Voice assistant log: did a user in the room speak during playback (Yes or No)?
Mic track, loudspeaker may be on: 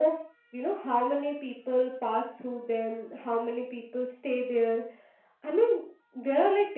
No